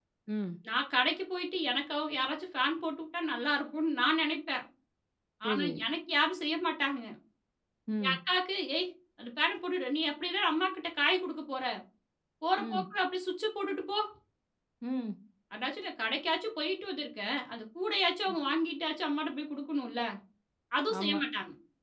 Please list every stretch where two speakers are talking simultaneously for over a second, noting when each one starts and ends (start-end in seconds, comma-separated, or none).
none